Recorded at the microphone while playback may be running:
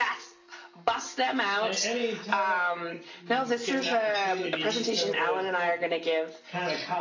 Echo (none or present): present